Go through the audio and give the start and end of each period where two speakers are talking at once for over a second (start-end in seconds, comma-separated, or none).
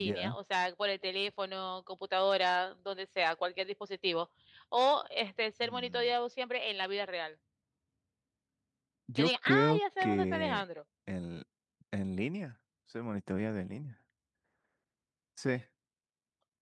9.2-10.6